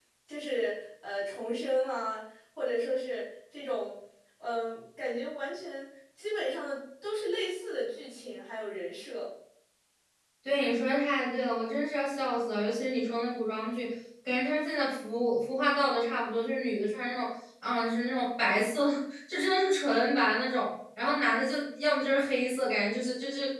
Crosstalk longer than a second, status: none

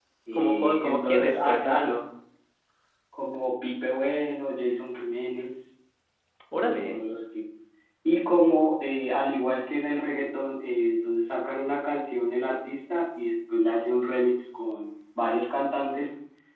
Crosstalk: present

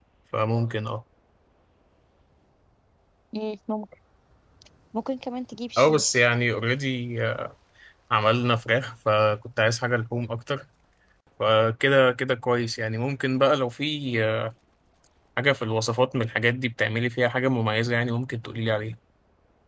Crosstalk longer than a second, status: none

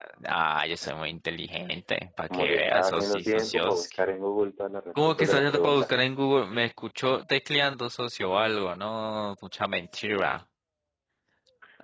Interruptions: present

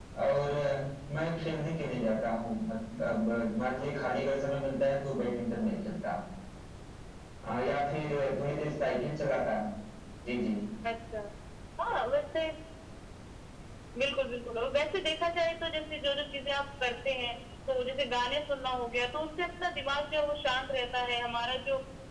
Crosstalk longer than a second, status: none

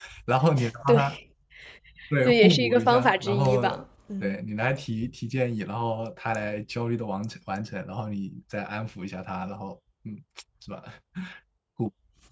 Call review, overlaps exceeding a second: present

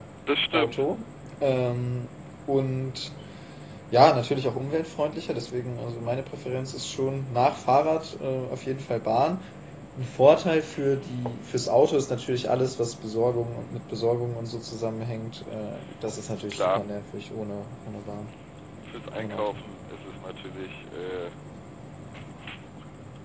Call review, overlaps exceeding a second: none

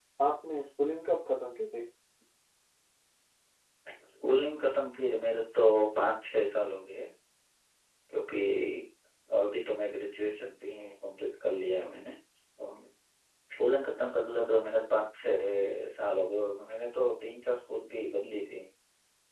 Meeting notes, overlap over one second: none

